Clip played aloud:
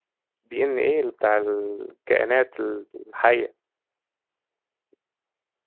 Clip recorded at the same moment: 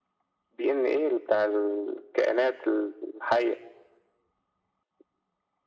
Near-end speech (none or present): none